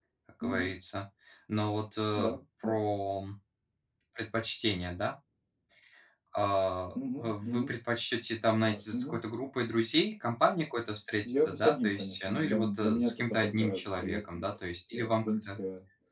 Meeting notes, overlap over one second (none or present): present